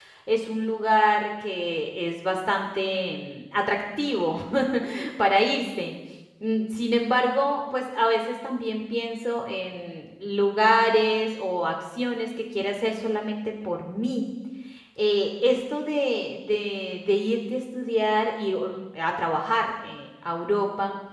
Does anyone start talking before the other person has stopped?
No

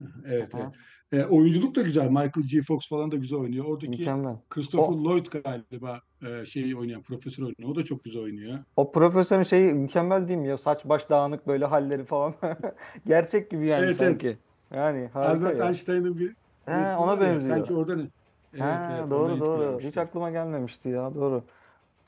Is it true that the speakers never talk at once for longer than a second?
No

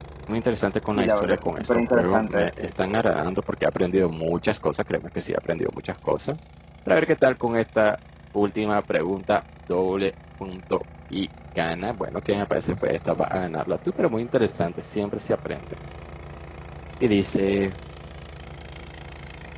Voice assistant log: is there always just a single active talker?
No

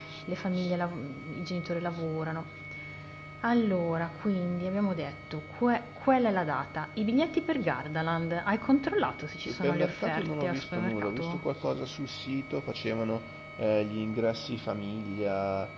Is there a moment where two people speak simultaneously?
Yes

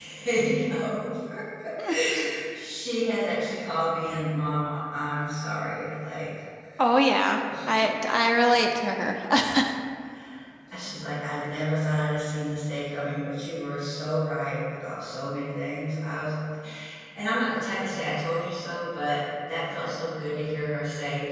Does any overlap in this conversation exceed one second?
No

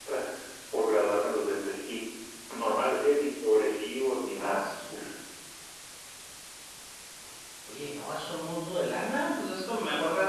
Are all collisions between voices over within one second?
Yes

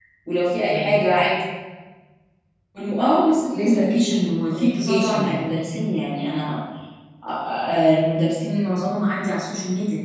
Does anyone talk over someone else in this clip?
Yes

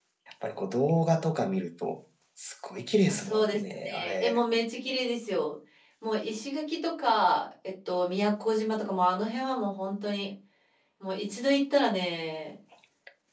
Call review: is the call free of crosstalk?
No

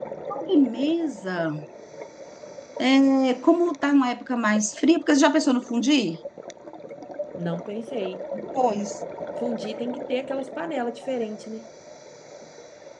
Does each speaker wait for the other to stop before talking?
Yes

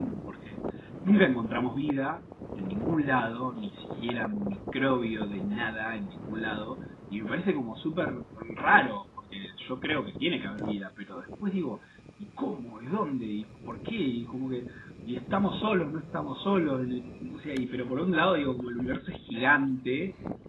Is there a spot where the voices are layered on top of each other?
No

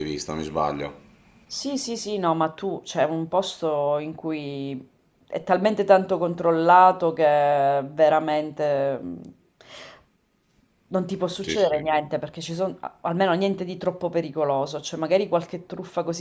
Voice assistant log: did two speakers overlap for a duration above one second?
No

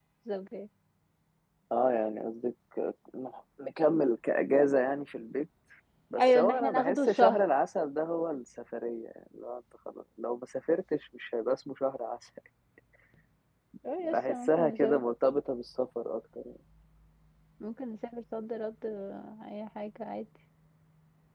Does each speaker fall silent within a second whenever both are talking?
No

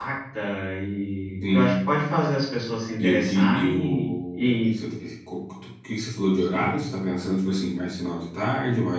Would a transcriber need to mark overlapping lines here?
Yes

